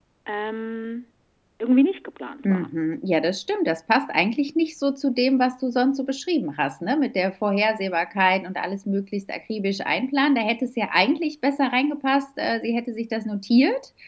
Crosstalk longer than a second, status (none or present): none